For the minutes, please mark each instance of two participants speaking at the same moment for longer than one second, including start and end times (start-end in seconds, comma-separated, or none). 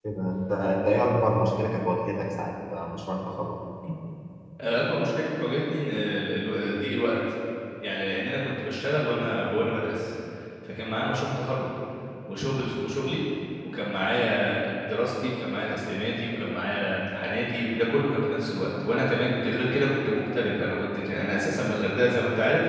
none